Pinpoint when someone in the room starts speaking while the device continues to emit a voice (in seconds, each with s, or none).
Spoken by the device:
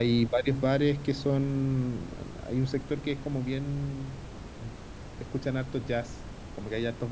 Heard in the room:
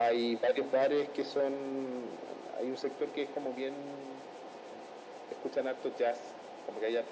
none